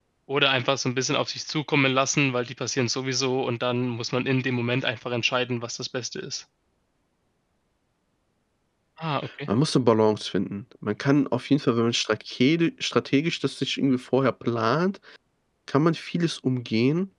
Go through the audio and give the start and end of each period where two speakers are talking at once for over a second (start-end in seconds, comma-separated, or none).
none